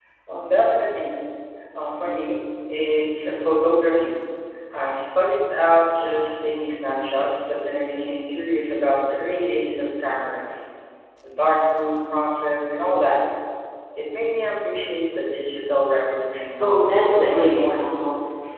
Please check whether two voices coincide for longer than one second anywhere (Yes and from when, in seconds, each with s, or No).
Yes, from 16.5 s